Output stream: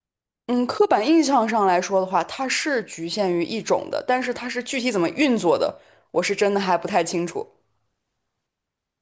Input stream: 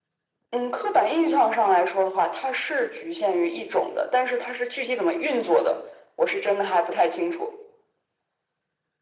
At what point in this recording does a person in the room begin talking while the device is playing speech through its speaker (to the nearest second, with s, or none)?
none